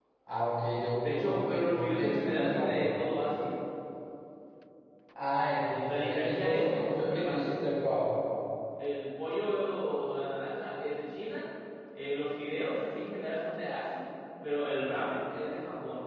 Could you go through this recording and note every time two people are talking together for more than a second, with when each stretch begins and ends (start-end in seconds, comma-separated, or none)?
1.0-2.8, 5.5-7.4